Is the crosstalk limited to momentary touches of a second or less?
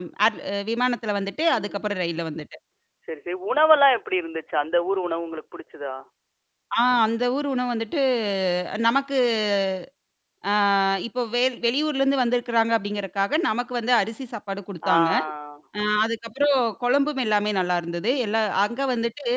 Yes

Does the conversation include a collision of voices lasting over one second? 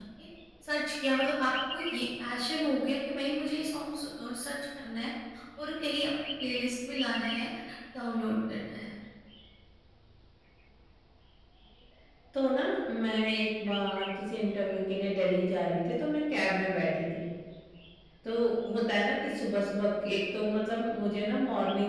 No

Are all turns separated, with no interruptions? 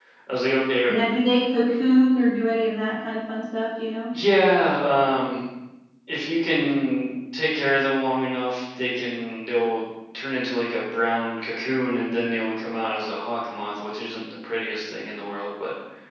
Yes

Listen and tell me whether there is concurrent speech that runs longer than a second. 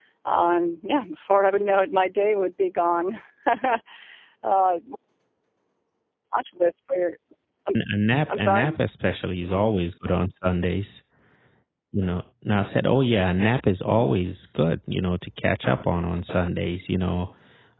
No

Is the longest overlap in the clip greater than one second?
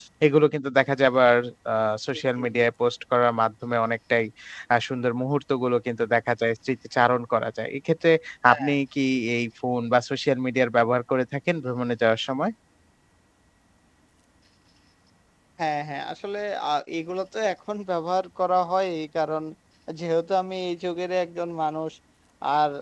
No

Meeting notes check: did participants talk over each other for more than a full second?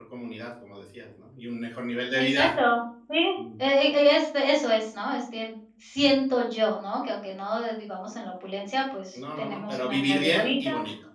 Yes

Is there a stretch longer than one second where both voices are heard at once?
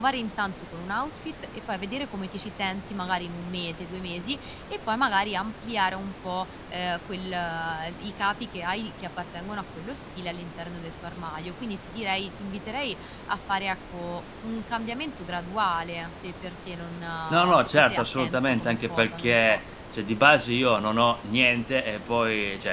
Yes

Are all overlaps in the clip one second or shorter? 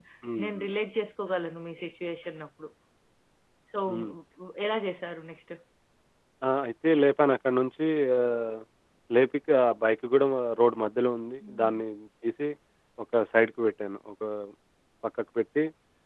Yes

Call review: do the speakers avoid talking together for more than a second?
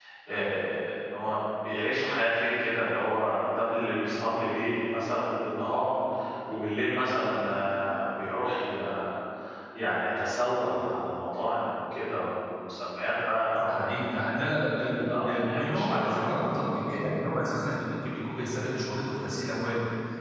No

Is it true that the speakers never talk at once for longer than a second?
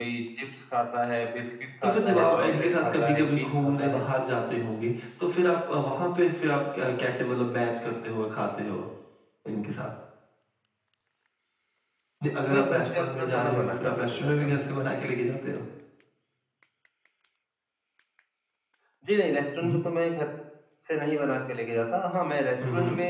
No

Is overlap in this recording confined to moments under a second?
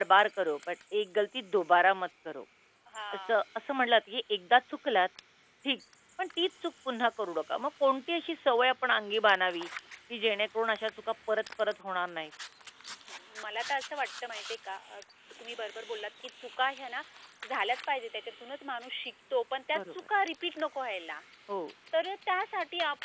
Yes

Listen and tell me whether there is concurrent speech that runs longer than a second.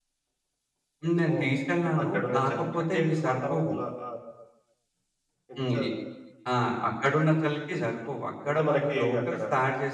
Yes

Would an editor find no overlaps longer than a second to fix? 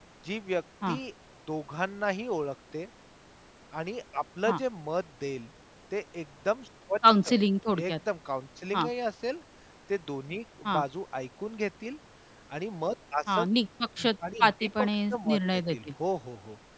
No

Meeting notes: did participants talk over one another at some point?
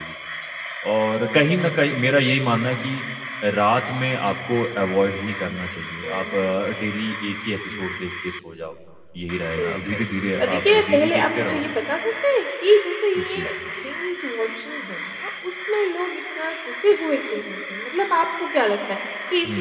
Yes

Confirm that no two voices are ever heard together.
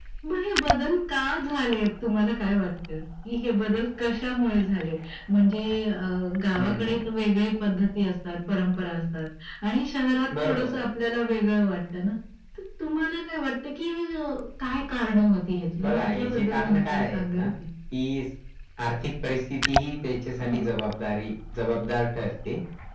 No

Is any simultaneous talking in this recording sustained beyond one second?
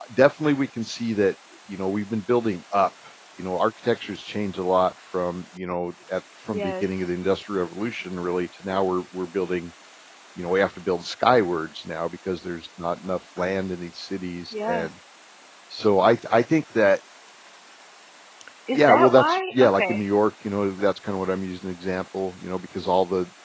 Yes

